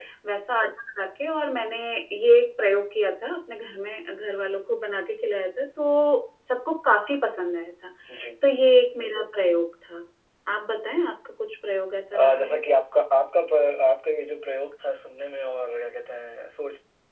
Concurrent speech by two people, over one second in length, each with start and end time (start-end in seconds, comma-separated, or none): none